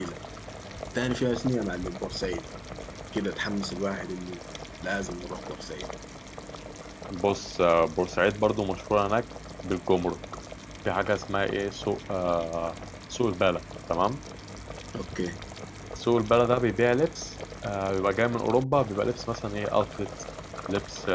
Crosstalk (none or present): none